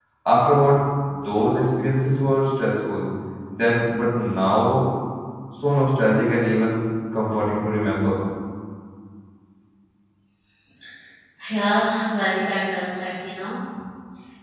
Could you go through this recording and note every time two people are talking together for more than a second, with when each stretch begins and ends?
none

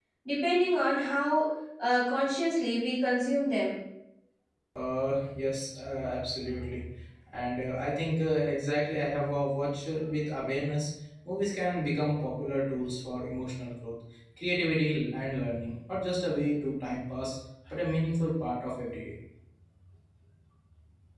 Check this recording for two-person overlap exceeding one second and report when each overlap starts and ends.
none

